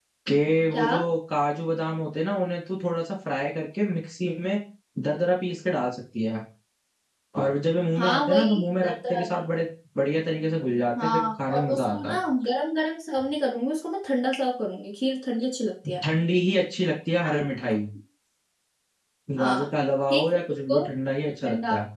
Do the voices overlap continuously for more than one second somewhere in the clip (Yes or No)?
Yes